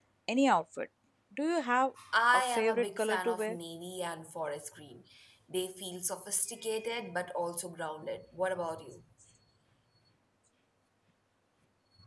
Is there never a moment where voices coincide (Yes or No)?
No